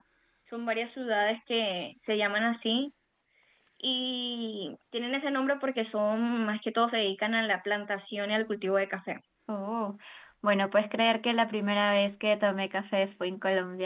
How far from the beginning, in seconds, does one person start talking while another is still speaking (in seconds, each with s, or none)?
none